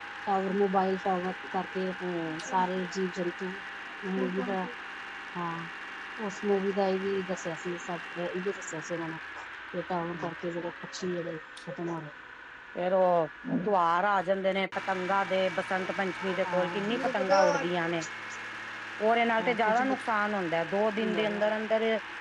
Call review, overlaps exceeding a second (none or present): present